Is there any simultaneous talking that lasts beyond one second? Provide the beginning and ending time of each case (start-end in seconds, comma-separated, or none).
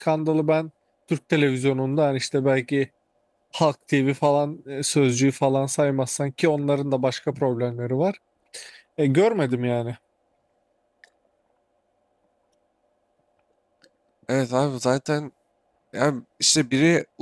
none